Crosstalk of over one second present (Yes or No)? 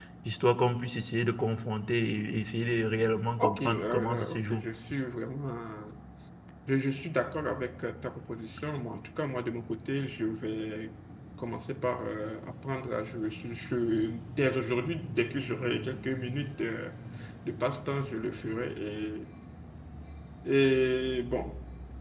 Yes